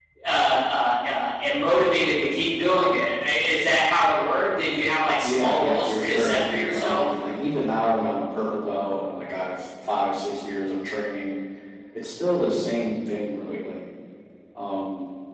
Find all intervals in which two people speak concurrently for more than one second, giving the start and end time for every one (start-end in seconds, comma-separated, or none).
5.2-7.1